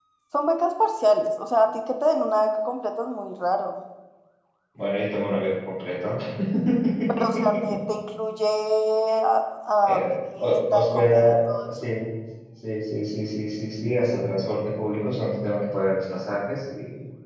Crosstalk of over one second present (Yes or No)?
Yes